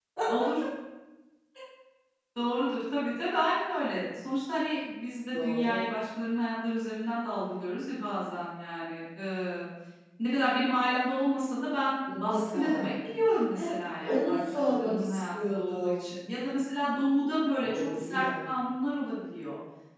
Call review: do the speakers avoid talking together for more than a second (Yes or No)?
No